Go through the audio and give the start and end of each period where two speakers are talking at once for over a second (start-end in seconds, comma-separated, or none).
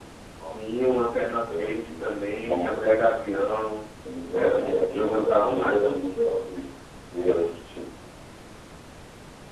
1.5-2.8, 4.4-5.8